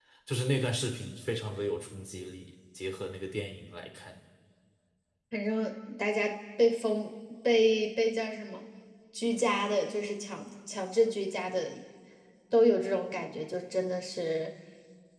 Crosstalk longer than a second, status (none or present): none